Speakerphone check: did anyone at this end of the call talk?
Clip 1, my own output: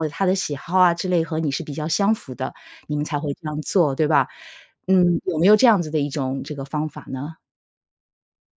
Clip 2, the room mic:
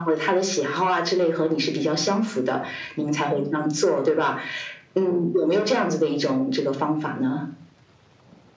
No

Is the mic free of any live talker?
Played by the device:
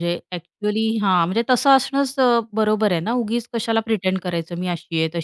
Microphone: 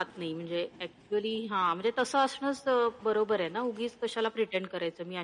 Yes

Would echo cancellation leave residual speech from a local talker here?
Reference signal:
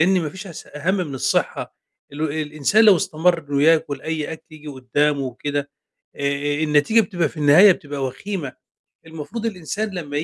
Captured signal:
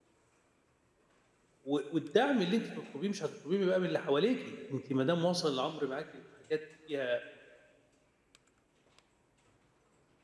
Yes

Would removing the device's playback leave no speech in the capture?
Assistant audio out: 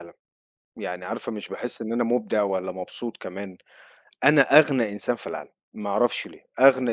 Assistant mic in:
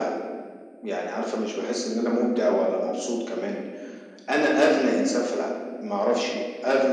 Yes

